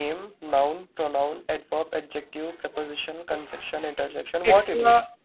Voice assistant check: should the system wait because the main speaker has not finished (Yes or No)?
No